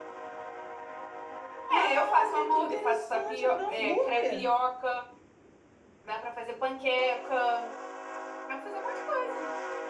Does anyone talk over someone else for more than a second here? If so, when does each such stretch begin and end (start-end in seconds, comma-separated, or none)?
1.7-4.4